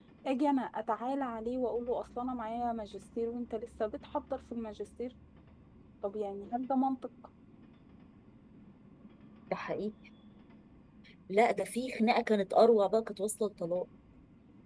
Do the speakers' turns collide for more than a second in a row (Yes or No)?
No